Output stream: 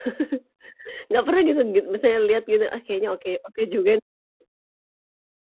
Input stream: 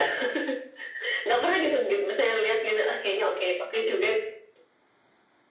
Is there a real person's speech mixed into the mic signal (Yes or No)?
No